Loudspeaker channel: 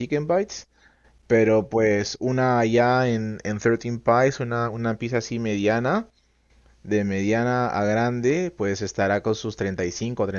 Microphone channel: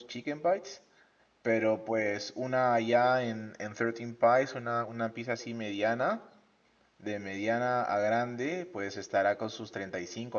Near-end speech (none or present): none